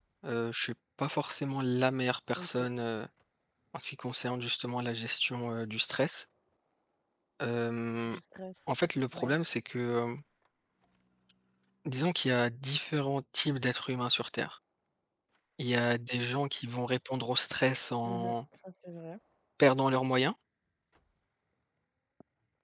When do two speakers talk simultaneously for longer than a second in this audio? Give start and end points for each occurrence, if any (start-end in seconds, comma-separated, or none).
none